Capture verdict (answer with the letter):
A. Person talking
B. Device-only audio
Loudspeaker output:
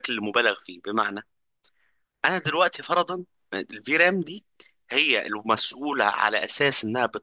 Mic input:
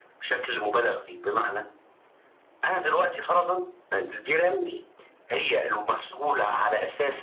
B